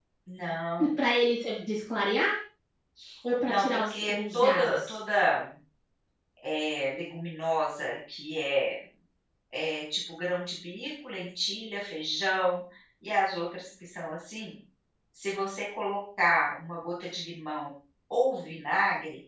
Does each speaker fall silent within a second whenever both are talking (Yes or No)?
No